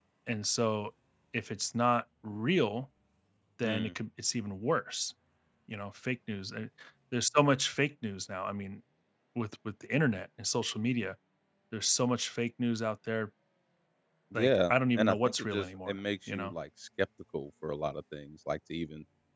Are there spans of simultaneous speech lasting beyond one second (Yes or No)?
Yes